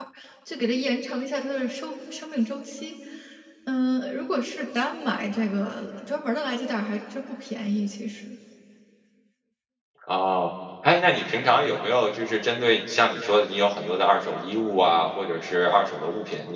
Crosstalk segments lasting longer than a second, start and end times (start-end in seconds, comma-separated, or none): none